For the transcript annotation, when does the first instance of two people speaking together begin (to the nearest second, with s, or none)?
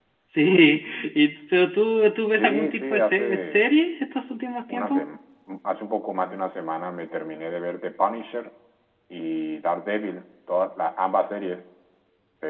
2 s